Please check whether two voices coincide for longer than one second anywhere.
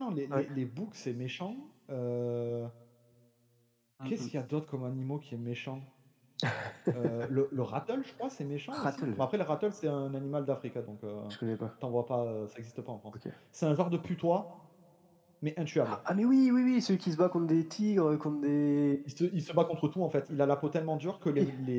No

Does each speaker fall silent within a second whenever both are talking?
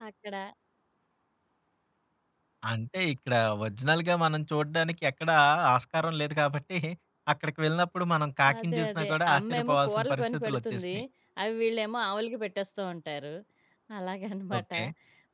No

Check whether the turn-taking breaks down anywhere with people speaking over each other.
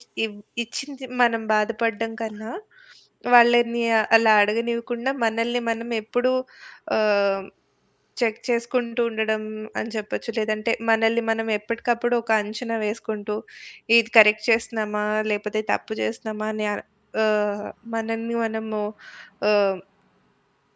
No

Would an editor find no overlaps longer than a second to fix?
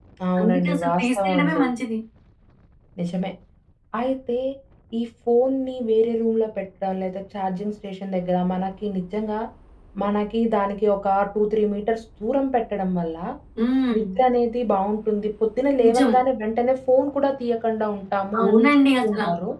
No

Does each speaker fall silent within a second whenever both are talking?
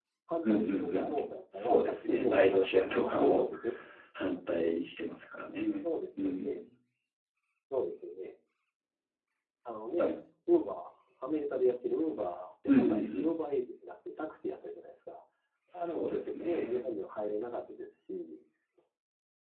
No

